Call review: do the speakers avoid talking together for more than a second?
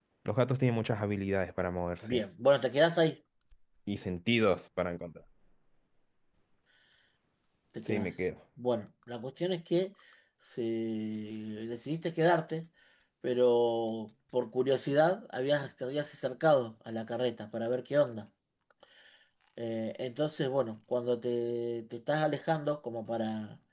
Yes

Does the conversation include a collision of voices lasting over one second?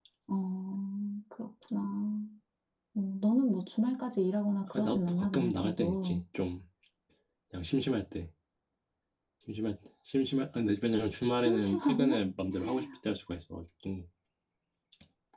Yes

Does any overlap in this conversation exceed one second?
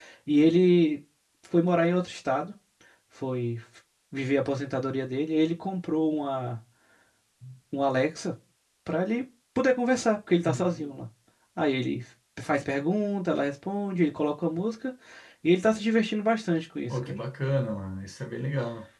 No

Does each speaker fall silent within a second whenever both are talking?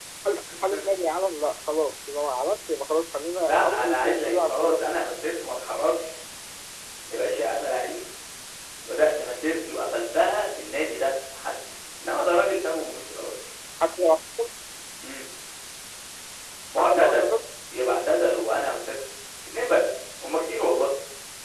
No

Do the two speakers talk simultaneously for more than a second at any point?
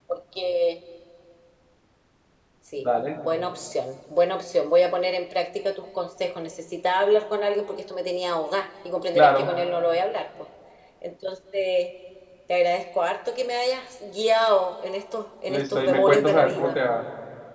Yes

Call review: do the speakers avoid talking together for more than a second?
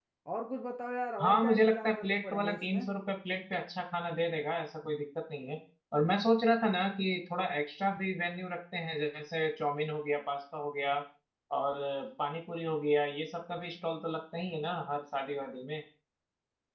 No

